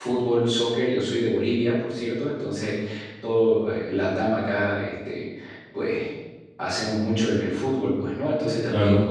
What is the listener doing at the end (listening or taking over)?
listening